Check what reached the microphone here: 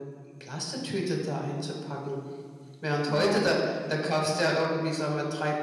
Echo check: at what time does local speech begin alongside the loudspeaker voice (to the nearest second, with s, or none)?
3 s